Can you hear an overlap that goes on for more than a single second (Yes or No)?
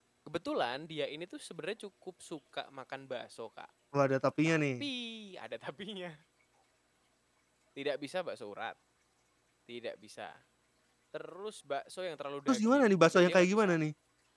Yes